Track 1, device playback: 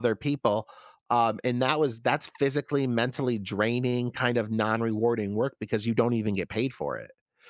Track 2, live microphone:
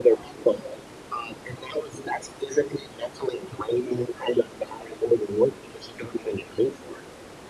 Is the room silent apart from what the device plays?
Yes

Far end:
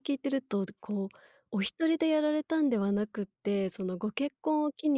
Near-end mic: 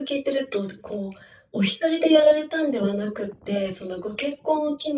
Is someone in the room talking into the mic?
No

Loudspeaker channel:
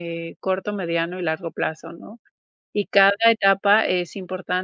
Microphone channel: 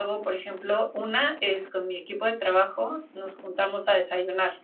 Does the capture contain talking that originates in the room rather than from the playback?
Yes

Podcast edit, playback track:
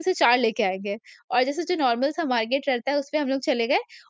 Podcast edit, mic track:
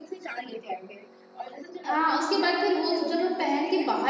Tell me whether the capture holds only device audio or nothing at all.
No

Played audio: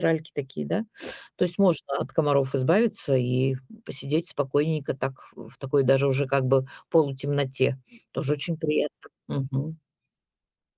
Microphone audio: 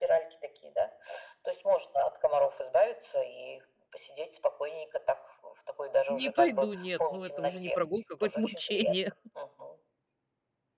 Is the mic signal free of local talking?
No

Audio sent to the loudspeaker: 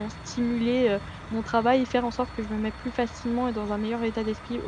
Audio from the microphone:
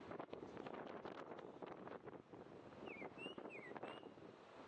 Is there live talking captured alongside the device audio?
No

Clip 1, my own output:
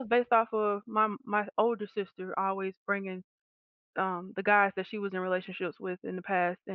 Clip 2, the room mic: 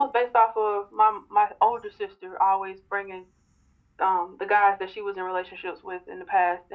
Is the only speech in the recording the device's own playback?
Yes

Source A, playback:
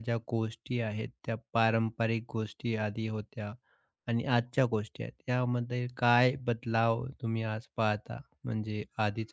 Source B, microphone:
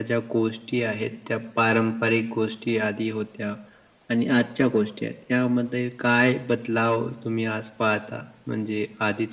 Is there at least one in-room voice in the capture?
No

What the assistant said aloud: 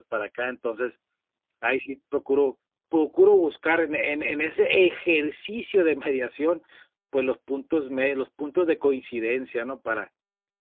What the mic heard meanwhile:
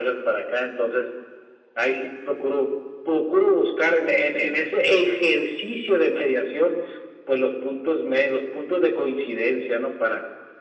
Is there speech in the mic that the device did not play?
No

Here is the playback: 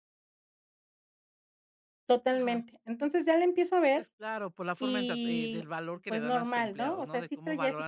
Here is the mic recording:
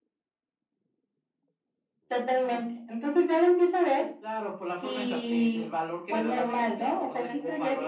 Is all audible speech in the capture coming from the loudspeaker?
No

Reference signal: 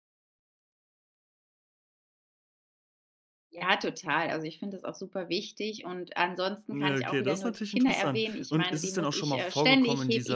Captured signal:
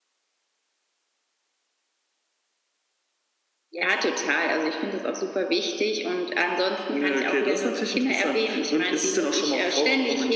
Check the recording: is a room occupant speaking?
No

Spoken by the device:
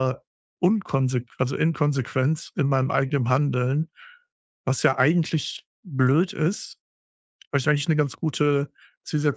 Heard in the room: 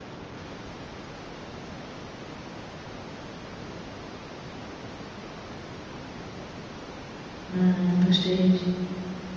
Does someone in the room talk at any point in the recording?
Yes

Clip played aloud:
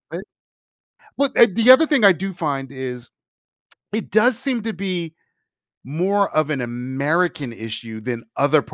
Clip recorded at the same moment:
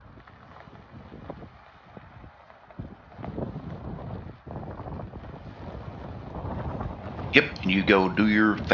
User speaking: Yes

